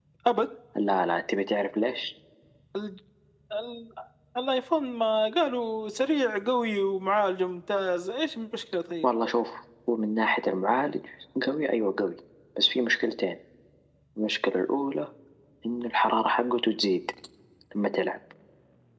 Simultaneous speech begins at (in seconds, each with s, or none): none